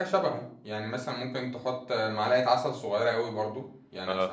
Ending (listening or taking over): listening